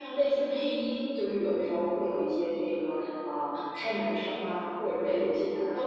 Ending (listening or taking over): listening